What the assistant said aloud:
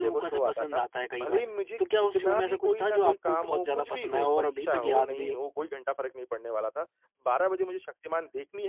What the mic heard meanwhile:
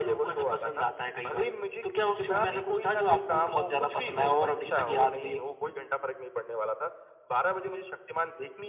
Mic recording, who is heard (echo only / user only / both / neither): echo only